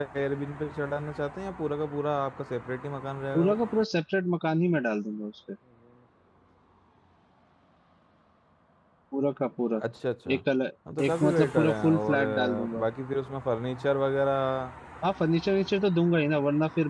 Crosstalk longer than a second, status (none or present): present